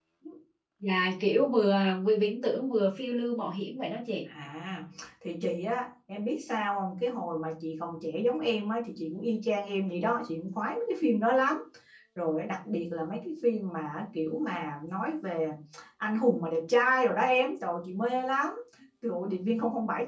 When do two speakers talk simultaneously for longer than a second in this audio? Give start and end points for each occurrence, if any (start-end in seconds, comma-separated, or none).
none